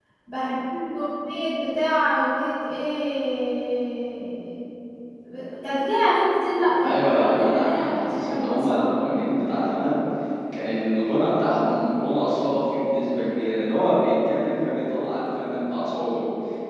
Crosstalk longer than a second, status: present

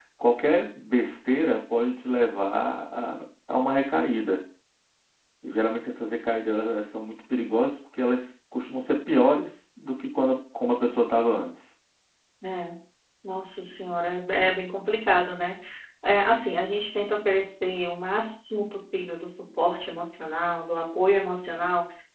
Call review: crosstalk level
none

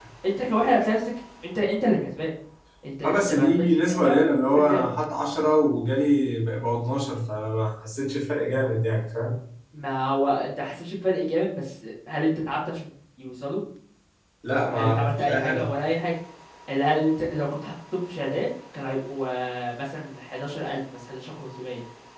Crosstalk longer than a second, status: present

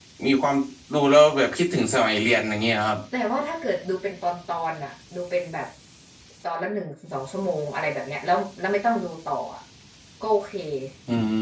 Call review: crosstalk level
none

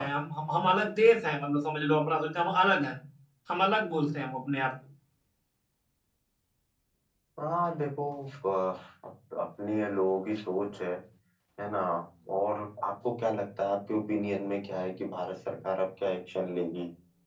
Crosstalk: none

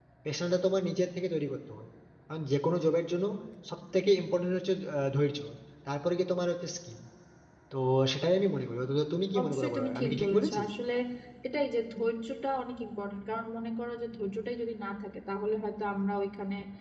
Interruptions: present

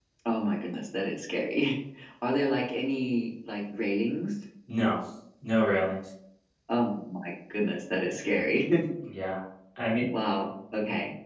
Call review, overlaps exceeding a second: none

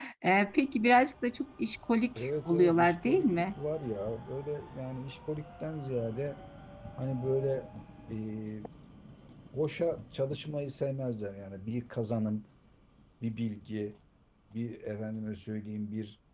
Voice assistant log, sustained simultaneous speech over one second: present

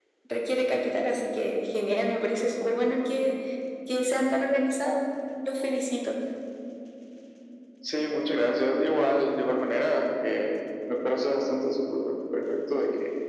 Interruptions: none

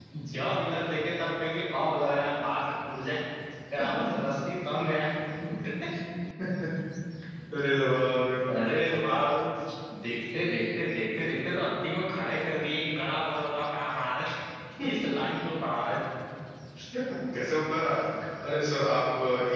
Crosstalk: none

